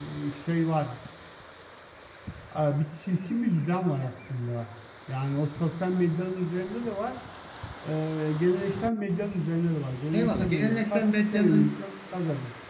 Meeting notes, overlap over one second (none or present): present